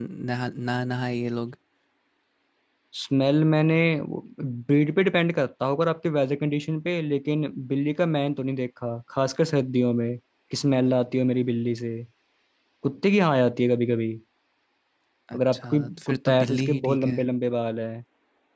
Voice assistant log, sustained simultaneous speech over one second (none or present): present